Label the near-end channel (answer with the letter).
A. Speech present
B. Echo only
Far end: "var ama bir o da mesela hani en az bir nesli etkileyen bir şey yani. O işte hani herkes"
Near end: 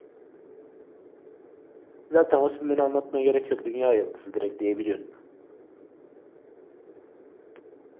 A